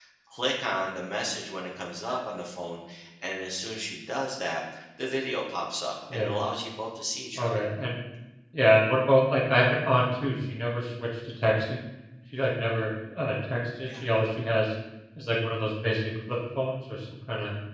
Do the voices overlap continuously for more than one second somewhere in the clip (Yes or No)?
No